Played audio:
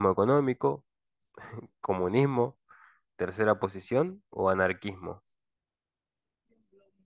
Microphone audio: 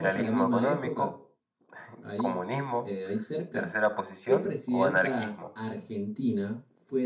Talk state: both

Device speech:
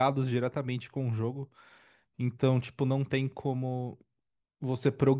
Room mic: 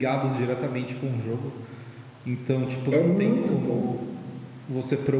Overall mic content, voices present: both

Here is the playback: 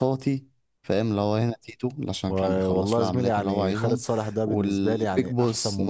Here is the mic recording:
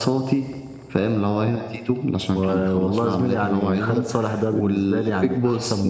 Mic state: echo only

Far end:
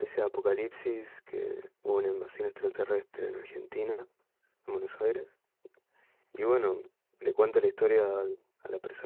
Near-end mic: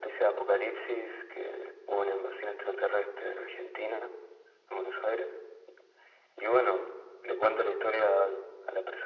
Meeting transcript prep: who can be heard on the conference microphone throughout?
echo only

